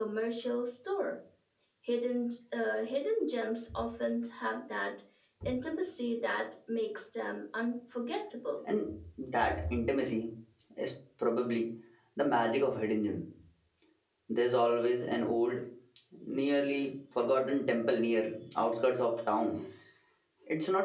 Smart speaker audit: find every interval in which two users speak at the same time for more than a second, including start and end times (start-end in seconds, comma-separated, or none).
none